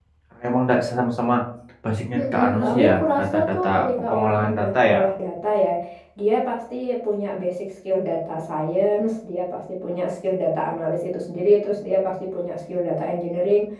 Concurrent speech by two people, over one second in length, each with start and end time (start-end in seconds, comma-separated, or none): 2.2-5.0